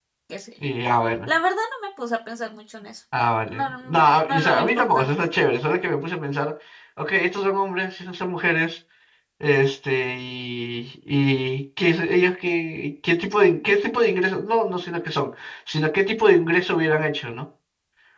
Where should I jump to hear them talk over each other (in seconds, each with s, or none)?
3.5 s